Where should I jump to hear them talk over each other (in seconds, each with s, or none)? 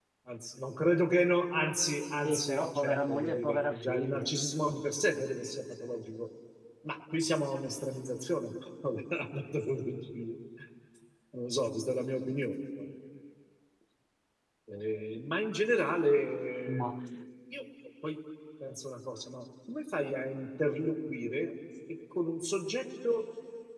2.2 s